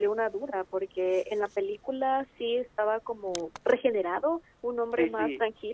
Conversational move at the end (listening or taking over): taking over